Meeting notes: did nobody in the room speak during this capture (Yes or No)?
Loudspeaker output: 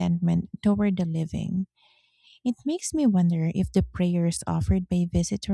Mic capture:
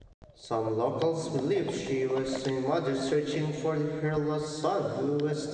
No